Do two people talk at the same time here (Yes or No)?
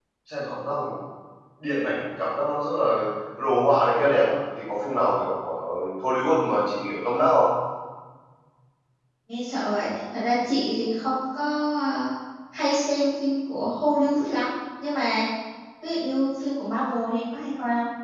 No